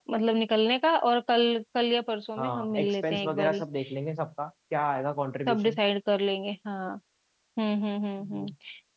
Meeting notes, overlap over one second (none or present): present